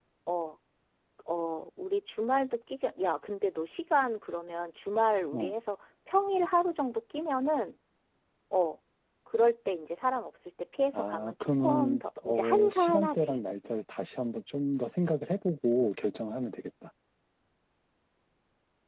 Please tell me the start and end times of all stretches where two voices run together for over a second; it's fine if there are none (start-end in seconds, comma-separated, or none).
10.9-13.3